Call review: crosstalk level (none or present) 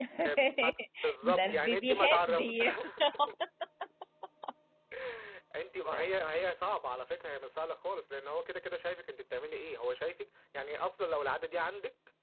present